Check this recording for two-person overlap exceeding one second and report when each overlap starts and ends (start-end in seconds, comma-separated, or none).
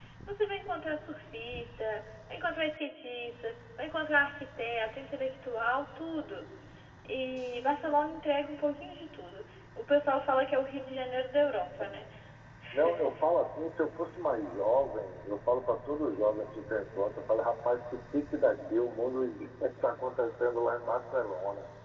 none